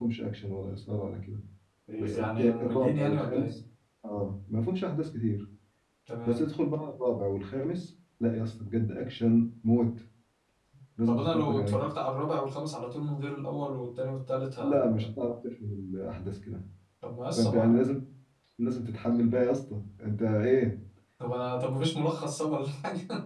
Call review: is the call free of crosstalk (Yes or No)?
No